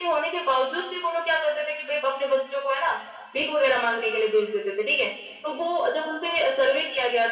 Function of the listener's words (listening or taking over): listening